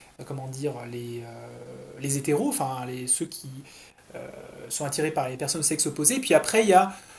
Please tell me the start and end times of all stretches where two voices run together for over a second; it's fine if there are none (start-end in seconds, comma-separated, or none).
none